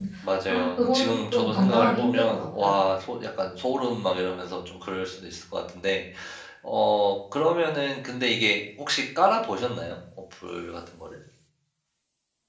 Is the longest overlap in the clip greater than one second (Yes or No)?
Yes